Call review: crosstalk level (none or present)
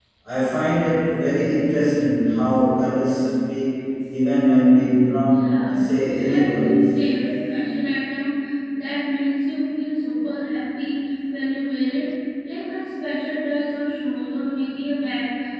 present